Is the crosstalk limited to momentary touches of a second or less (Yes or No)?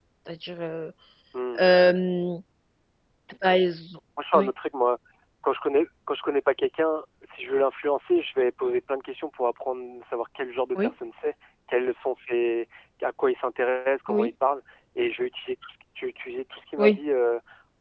Yes